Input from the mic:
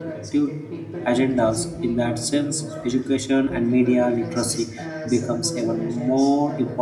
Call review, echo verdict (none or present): present